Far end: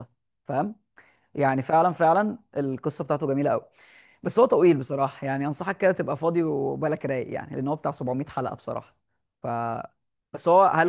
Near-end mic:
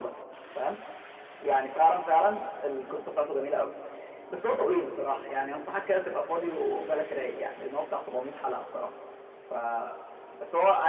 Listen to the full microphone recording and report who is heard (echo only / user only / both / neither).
echo only